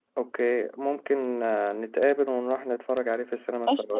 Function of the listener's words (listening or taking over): taking over